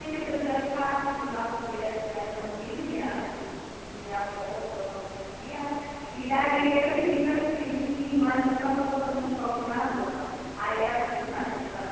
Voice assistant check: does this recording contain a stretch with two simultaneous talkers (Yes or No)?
No